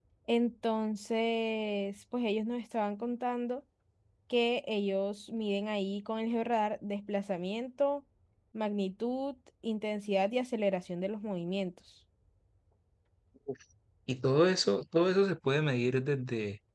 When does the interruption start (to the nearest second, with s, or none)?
none